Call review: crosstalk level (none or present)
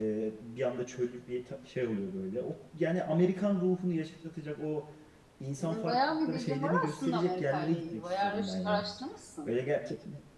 present